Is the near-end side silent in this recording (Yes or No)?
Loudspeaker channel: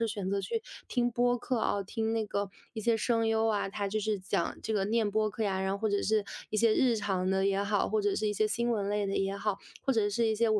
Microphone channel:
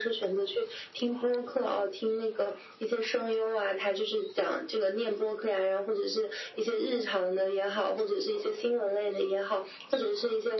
Yes